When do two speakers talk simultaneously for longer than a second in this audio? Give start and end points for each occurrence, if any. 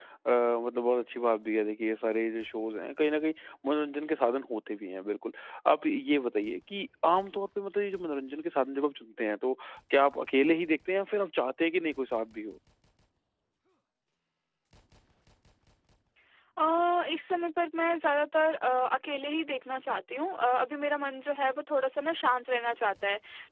none

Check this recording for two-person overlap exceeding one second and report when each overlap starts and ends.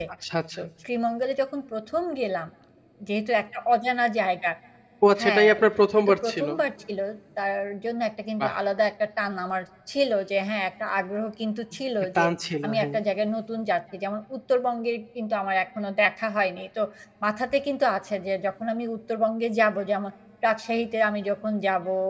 5.2-6.5

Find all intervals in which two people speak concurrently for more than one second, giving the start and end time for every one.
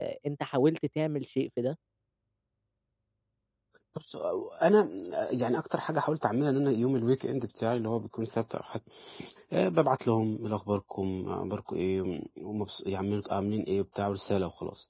none

